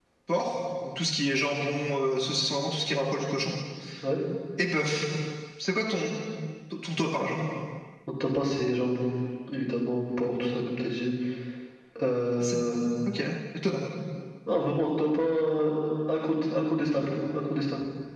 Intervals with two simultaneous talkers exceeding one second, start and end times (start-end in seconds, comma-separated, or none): none